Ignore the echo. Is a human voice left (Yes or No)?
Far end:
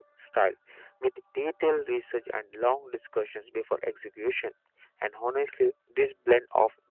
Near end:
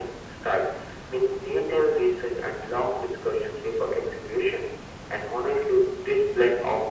No